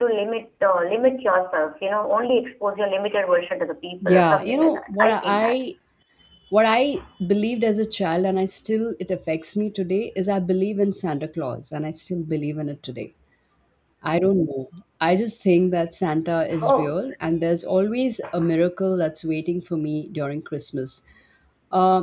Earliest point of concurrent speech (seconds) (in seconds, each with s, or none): 4.0 s